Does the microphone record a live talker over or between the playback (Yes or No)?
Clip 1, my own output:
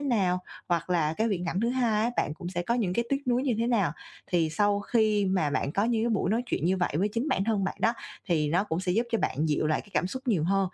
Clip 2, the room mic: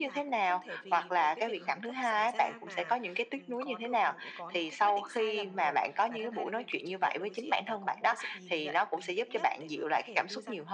Yes